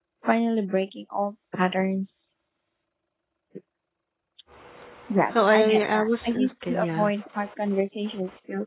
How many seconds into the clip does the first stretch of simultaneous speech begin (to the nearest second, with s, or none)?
6 s